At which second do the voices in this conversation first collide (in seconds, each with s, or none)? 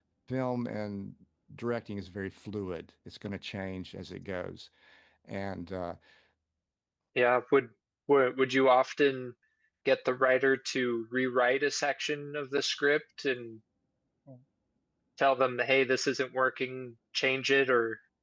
none